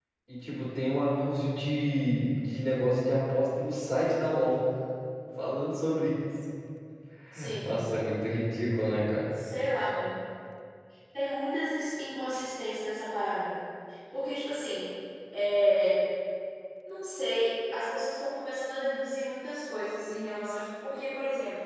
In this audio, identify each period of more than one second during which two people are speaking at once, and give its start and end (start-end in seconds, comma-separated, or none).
none